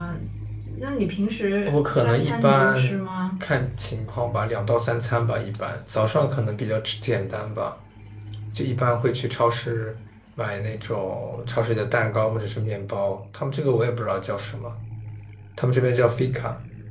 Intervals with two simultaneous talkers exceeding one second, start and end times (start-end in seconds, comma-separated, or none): 1.7-3.0